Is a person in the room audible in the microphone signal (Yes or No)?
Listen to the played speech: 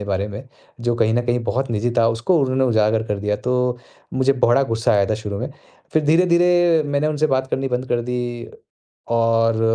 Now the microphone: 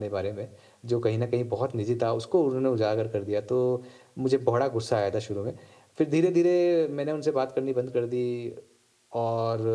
No